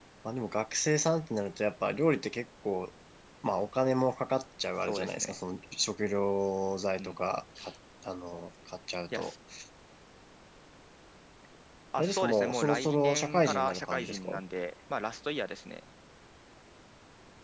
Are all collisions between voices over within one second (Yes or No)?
No